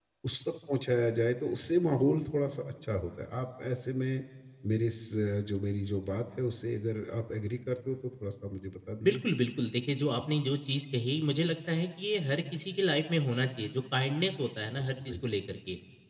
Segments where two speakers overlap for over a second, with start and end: none

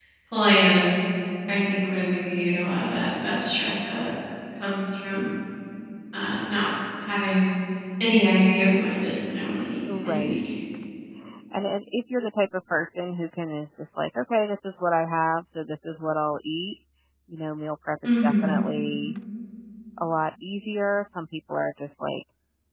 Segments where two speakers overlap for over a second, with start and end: none

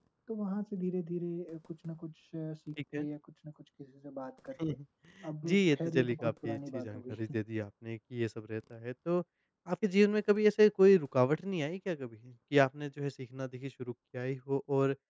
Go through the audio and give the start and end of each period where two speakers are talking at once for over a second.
5.4-7.2

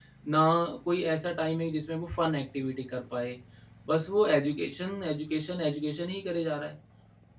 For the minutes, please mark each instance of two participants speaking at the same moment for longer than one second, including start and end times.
none

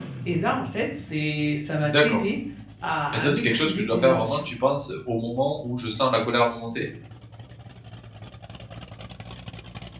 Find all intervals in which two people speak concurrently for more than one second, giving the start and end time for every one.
3.1-4.5

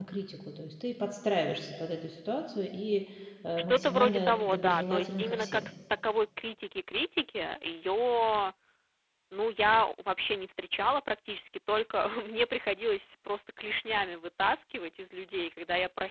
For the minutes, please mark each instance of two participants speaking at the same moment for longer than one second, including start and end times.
3.6-5.7

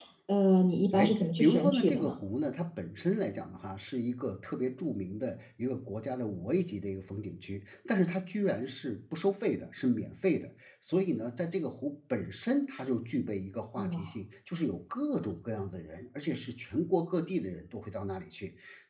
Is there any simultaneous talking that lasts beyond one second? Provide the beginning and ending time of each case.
0.9-2.2

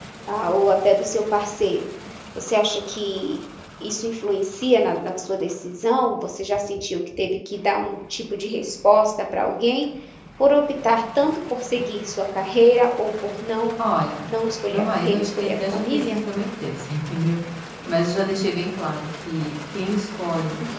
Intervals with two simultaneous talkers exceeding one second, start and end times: 14.7-16.2

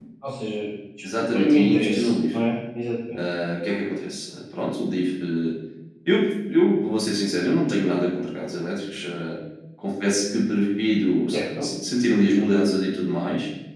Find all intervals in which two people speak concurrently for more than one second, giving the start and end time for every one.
1.1-2.4

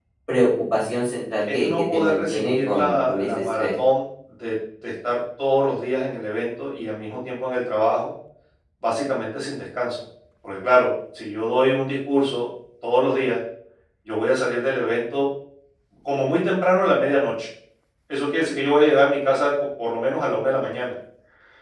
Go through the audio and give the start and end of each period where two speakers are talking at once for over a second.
1.5-3.7

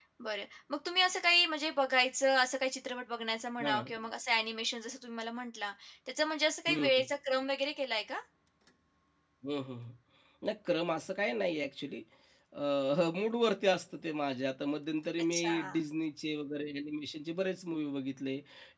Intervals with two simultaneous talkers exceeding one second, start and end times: none

